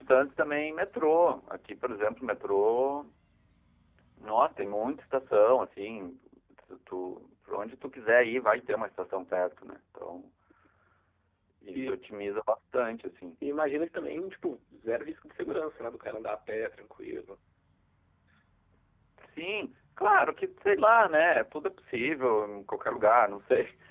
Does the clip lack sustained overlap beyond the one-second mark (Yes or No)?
Yes